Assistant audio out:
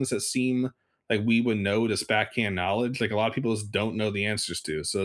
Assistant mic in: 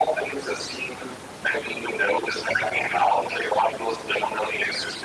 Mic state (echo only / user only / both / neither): echo only